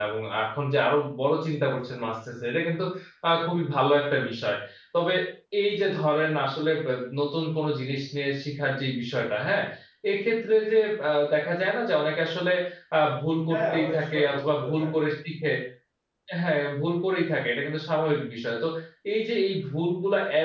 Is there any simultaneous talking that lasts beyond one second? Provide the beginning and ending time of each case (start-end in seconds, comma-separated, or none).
13.5-15.0